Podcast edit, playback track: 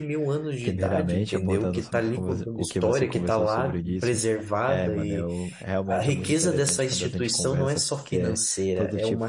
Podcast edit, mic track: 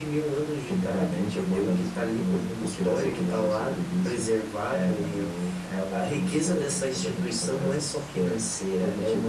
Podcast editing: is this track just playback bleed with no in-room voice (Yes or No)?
Yes